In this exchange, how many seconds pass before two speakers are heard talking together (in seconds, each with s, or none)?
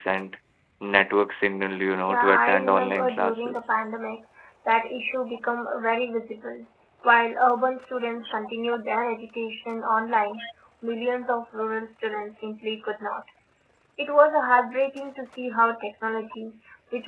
2.1 s